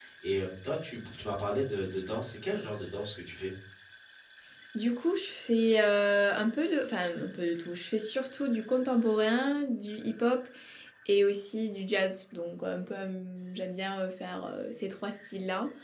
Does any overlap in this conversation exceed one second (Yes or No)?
No